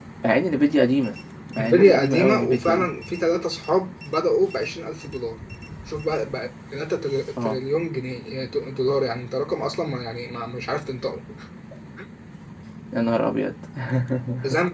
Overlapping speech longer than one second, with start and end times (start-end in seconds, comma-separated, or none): 1.6-2.9